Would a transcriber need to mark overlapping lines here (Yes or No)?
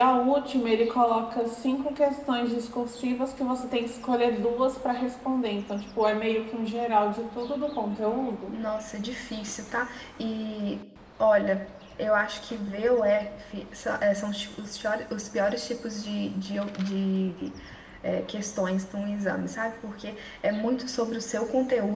No